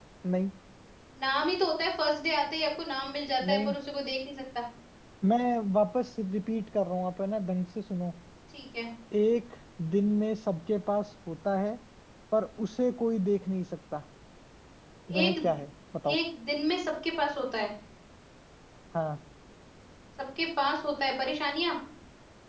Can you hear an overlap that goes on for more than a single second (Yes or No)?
No